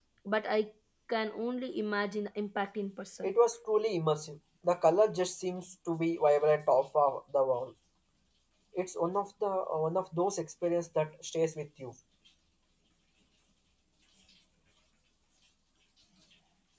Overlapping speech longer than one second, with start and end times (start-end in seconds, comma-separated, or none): none